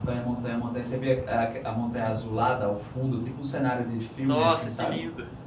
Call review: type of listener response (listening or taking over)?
taking over